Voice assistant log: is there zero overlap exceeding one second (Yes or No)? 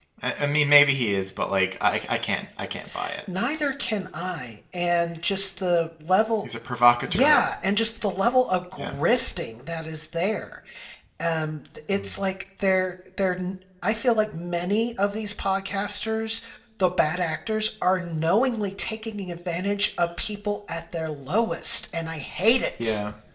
Yes